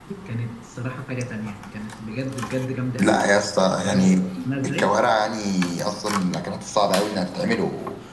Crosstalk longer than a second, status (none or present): none